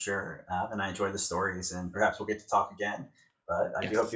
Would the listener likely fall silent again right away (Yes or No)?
No